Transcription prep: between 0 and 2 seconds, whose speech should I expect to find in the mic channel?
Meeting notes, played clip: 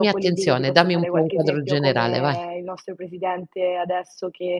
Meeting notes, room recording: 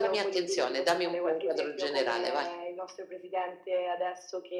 echo only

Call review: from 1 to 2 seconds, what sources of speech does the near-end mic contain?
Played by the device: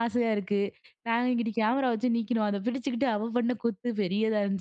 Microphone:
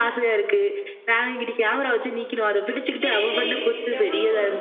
echo only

